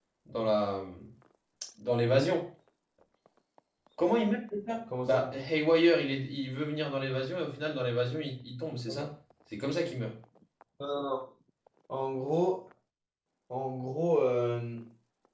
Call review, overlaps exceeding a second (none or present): none